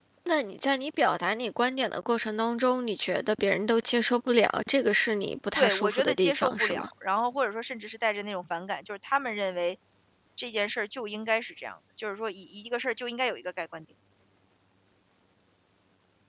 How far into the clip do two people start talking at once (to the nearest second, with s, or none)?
6 s